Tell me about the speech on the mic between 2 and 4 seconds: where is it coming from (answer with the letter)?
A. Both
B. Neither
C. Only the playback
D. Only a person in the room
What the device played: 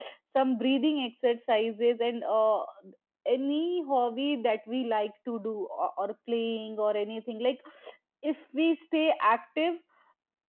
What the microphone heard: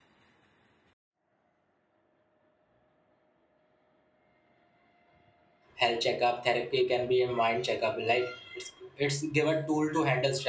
B